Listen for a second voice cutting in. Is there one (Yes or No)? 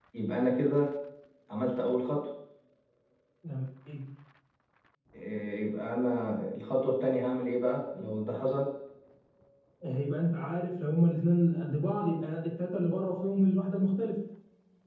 No